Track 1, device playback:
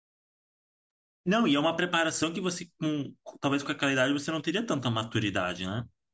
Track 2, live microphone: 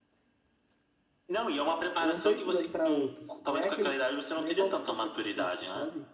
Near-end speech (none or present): present